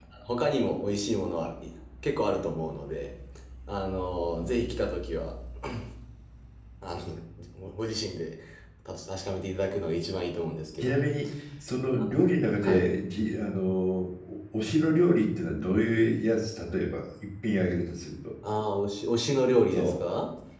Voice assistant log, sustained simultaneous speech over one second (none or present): none